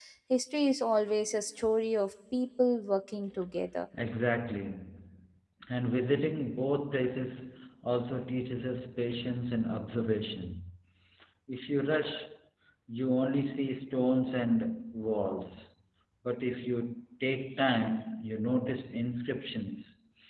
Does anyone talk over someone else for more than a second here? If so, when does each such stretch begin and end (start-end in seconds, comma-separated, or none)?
none